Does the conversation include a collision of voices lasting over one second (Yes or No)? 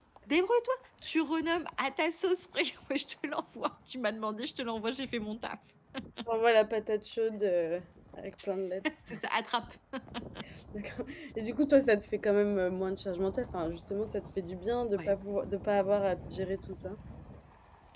No